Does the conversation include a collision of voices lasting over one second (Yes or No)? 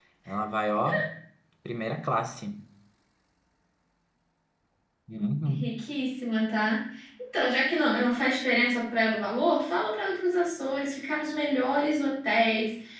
No